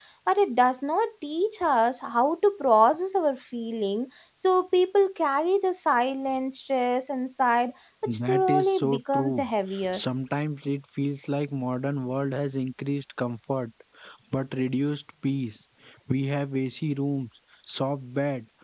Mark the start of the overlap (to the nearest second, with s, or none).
8 s